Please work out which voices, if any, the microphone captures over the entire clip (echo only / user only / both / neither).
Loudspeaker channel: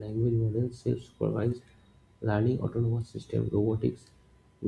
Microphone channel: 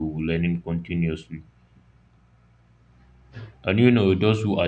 user only